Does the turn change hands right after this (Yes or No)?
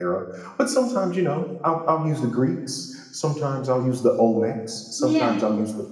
No